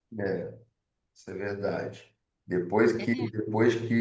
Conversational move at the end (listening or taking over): listening